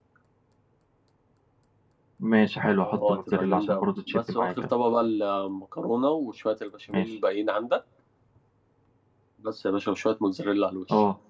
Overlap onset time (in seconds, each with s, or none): 2.8 s